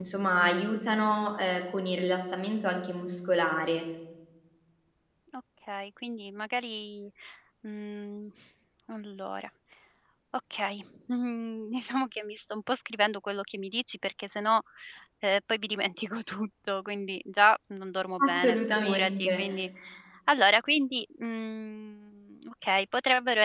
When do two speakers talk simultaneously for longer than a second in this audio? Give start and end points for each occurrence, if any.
18.2-19.4

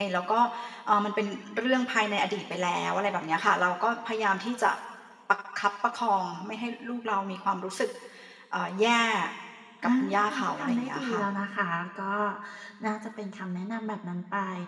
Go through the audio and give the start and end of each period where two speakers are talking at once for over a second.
10.0-11.2

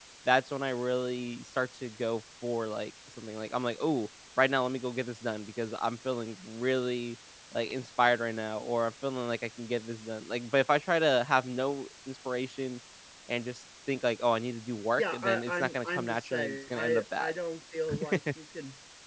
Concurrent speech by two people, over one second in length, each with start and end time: 15.0-17.3

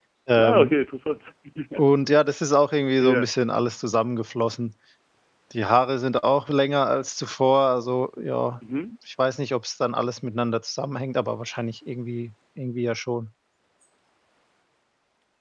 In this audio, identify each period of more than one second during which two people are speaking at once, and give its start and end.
none

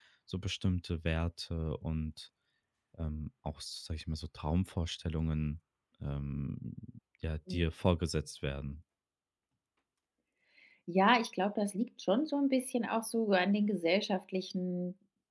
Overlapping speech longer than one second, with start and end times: none

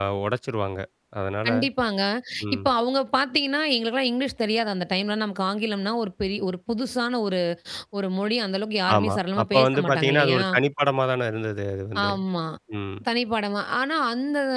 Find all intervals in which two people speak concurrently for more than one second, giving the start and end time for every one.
9.0-10.4

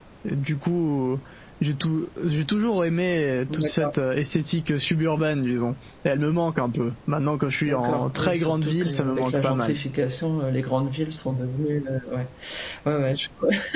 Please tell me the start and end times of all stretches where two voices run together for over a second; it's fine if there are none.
7.7-9.8

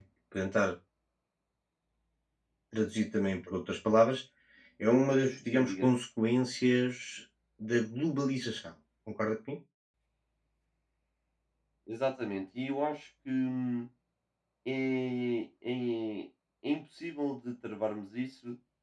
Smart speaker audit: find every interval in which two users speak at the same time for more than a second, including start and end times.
none

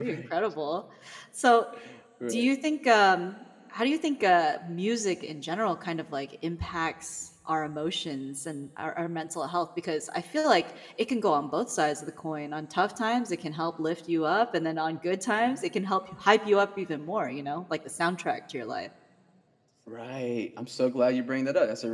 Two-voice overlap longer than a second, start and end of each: none

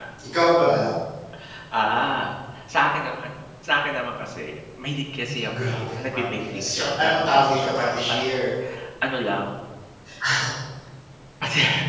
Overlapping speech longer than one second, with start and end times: 5.6-8.5

